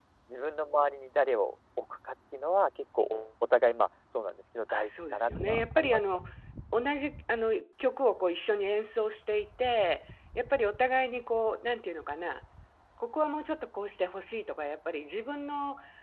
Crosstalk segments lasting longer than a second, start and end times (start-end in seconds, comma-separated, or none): 4.7-6.2